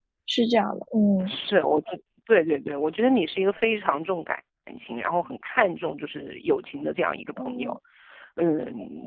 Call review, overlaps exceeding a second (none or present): none